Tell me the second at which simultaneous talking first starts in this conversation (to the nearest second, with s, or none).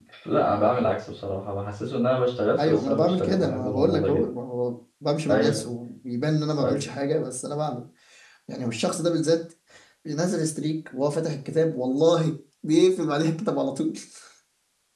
3 s